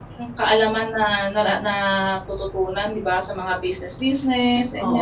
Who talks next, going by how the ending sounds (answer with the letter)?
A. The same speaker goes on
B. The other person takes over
B